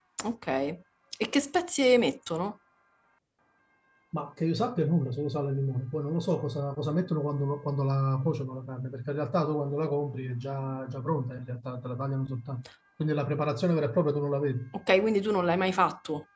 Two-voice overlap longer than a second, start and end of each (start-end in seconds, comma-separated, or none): none